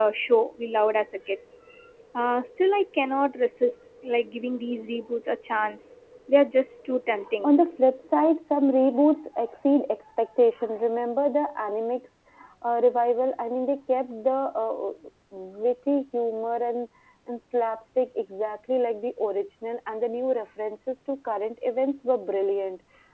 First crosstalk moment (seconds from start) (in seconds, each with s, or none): none